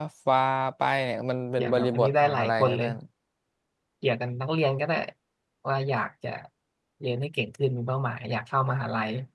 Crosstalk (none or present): present